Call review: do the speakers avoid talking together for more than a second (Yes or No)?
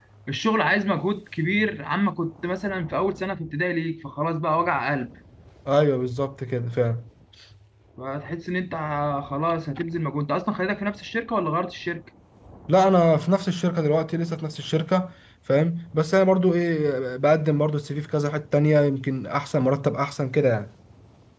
Yes